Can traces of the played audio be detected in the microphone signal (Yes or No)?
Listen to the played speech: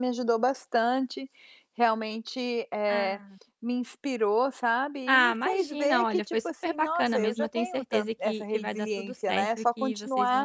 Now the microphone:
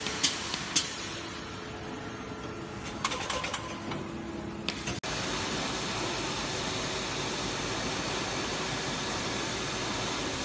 No